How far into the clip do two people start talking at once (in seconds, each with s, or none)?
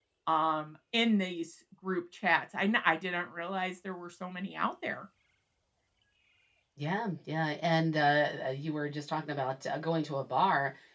none